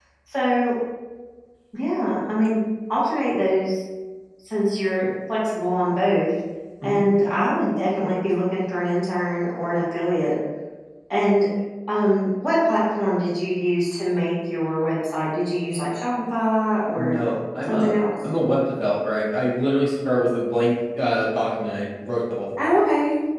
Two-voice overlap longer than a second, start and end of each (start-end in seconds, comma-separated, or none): none